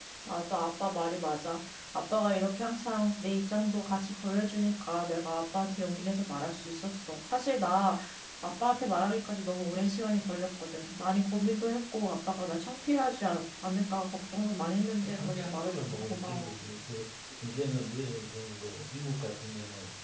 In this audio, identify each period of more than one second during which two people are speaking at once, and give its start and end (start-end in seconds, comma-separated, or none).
15.0-16.6